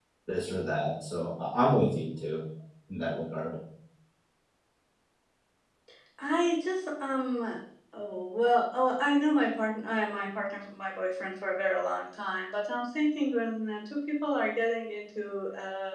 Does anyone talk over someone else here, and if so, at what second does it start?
none

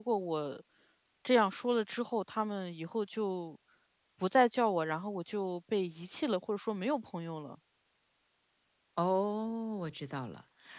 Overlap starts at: none

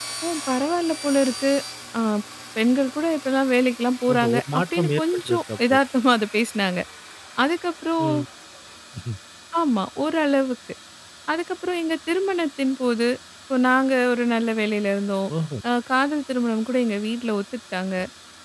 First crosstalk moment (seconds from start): 4.1 s

